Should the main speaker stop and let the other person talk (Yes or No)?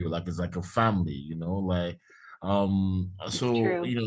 No